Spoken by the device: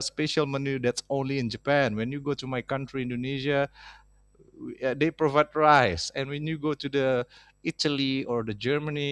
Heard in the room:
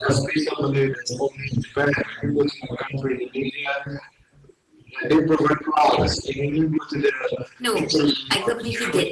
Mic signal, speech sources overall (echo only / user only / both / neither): both